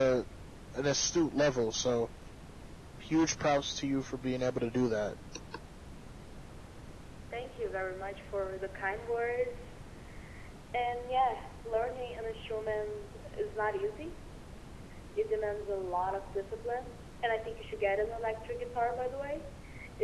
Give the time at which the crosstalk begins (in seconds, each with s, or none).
none